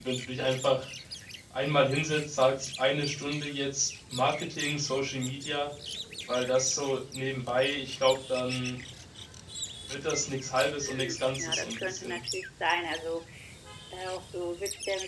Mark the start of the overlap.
10.8 s

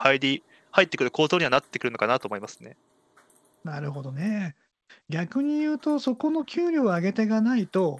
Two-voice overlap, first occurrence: none

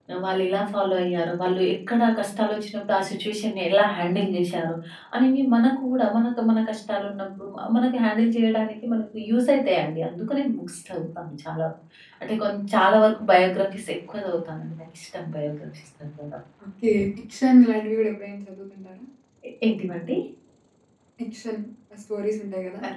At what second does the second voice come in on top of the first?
none

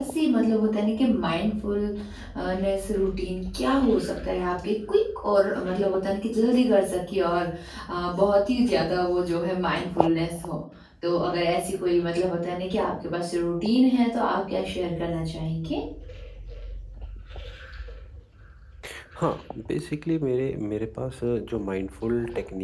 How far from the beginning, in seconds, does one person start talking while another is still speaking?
none

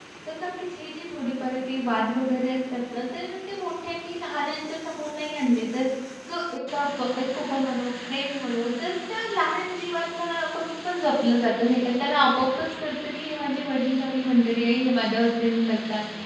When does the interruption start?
none

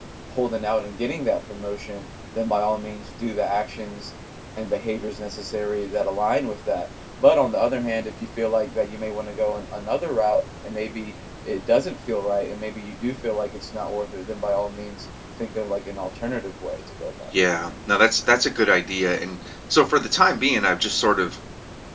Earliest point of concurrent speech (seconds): none

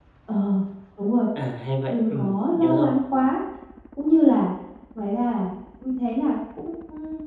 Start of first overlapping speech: 1.9 s

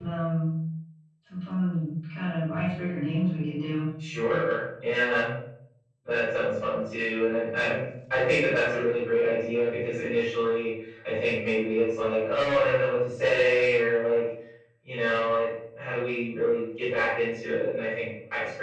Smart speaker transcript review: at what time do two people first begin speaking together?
none

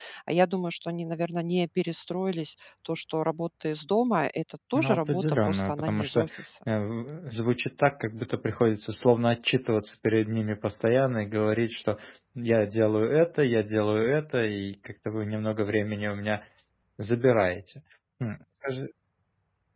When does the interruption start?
4.8 s

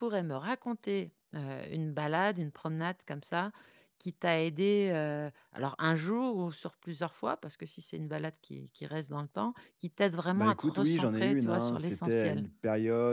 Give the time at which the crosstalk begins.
10.3 s

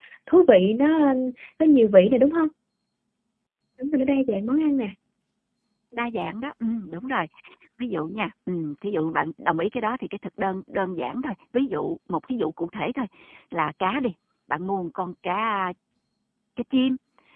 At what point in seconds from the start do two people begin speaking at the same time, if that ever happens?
none

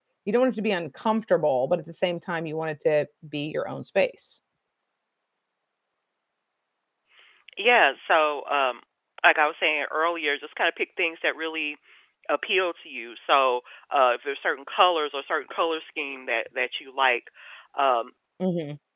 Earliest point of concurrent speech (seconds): none

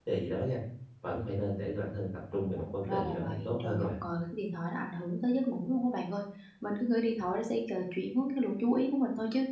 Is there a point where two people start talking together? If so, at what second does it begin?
2.3 s

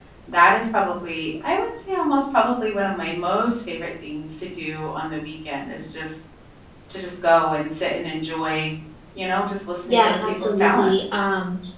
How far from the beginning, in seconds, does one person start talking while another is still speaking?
9.8 s

